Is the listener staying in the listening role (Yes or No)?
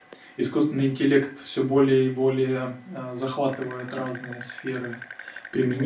Yes